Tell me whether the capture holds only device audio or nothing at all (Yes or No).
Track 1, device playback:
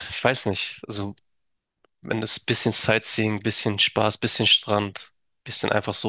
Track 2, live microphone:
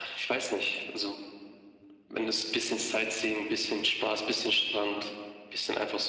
Yes